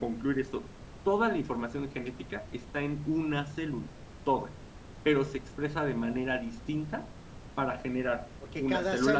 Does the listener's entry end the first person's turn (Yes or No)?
Yes